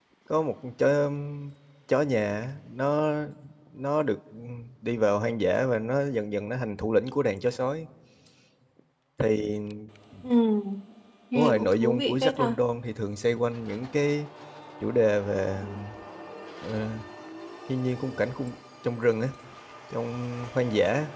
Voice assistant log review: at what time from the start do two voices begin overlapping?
11.3 s

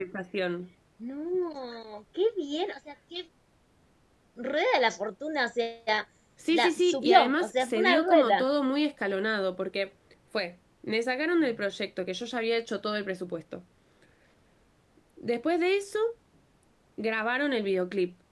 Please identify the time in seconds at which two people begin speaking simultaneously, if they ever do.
6.5 s

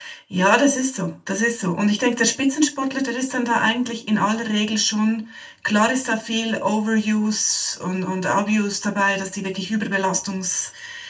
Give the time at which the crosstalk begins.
none

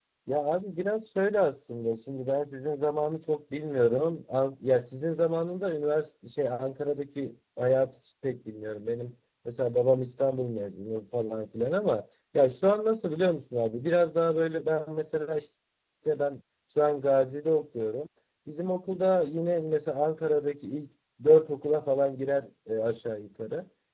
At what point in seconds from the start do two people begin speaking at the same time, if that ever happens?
none

